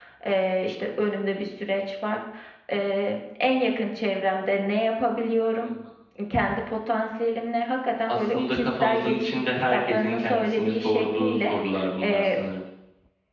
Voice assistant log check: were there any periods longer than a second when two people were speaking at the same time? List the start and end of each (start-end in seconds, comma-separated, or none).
8.1-11.5